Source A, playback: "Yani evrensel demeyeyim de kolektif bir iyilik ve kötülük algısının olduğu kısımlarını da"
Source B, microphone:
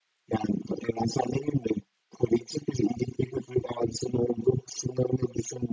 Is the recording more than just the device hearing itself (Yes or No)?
No